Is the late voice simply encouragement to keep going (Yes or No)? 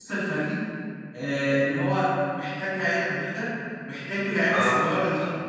Yes